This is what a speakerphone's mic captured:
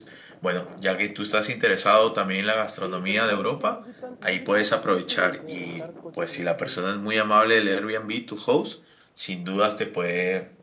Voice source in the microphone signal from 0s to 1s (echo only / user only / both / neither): echo only